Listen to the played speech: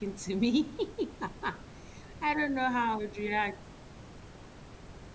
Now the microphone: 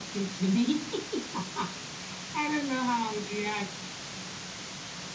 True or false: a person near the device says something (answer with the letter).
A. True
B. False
B